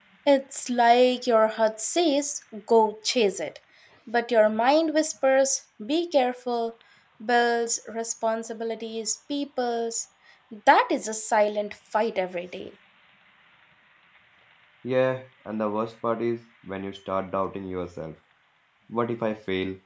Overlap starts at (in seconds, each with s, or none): none